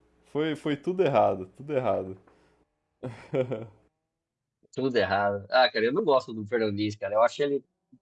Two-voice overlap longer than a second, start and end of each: none

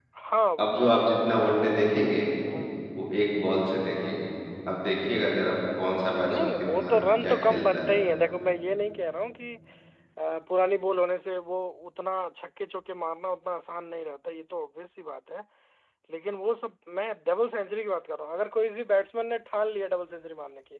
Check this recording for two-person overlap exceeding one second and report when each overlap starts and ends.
6.3-7.9

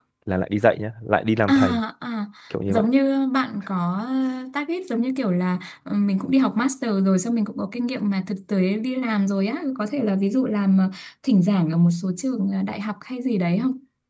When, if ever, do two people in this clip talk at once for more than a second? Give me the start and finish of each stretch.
none

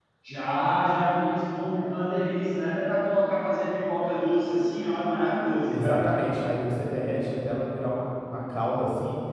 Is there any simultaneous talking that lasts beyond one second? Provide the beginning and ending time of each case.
none

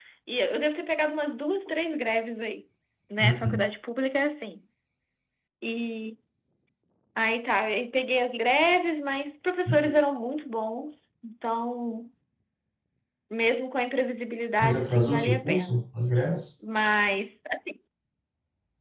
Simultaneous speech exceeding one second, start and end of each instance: 14.6-15.8

